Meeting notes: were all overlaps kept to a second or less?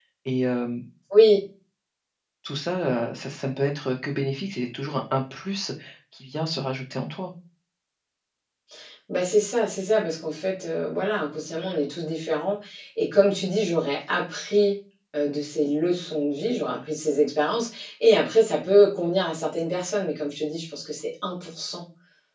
Yes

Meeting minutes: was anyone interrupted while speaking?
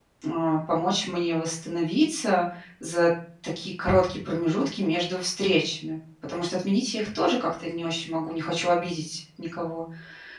No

